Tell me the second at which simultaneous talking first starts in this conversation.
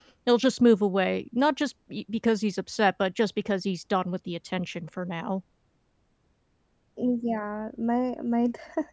none

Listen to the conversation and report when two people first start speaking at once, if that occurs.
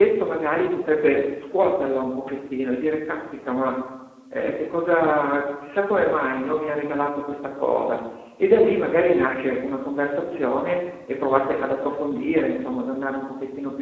none

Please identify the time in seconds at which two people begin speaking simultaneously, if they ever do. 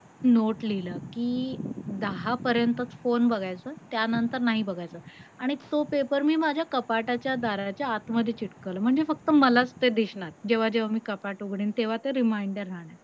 none

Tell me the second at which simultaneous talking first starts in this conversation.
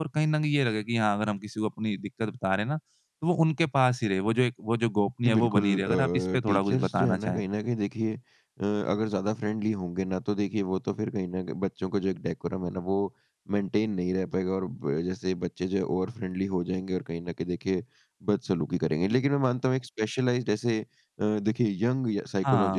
5.2 s

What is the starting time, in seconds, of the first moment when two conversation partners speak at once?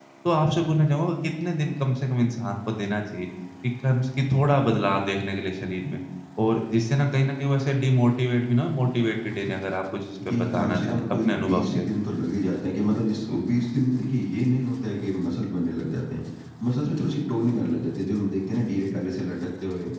10.2 s

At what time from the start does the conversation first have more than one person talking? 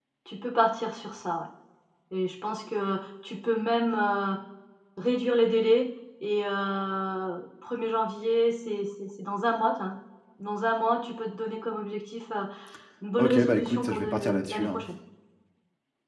13.2 s

